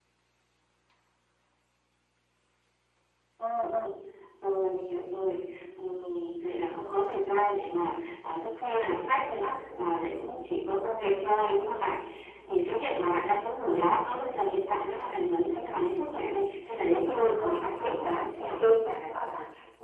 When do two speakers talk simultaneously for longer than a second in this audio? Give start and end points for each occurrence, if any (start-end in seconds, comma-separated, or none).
16.9-18.6